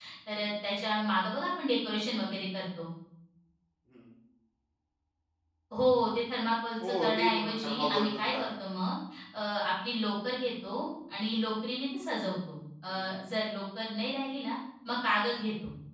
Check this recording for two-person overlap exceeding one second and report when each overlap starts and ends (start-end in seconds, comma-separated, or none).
6.8-8.5